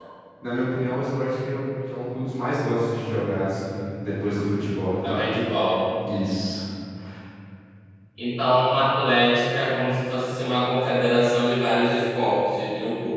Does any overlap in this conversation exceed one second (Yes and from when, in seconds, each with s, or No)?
No